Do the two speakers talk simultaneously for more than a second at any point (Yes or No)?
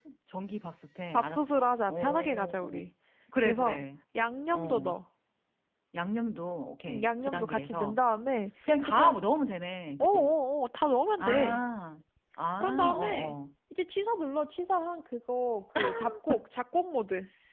Yes